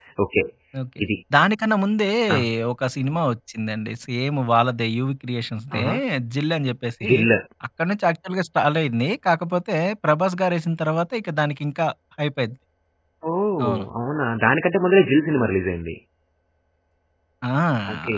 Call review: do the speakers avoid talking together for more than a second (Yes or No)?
Yes